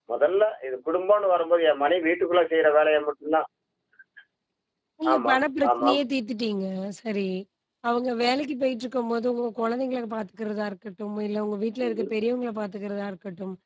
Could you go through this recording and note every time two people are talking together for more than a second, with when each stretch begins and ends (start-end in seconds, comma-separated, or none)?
none